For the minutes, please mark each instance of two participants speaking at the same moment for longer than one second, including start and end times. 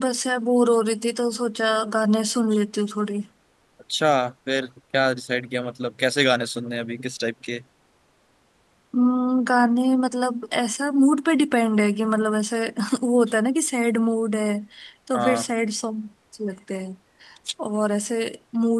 none

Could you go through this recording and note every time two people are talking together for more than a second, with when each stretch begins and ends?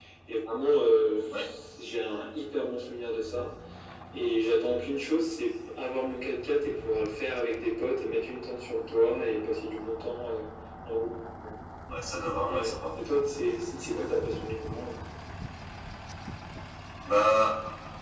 none

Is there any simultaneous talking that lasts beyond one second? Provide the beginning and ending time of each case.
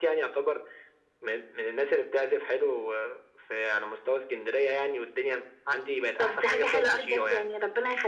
6.2-7.5

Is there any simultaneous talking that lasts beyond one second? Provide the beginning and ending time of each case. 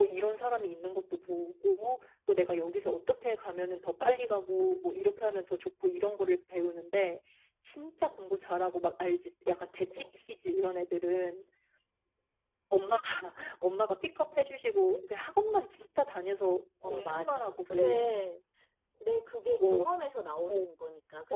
16.8-18.3

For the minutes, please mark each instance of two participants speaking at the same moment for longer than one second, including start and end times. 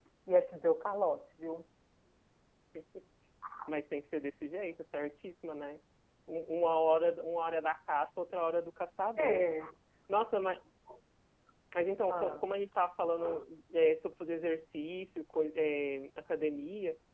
none

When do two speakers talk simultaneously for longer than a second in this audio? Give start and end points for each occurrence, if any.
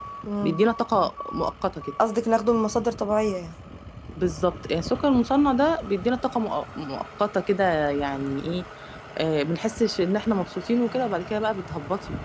none

